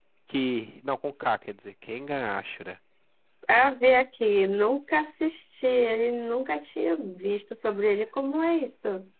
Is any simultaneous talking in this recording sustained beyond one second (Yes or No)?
No